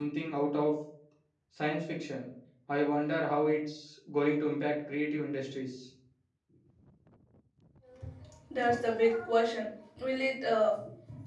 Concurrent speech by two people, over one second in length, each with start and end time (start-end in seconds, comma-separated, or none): none